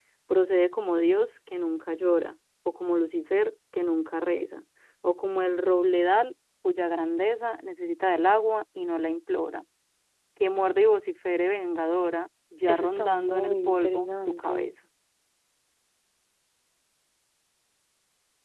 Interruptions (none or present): present